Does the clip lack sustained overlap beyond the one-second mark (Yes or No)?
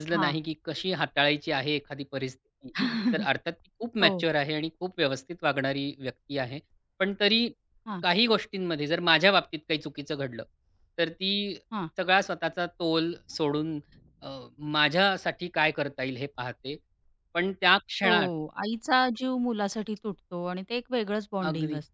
Yes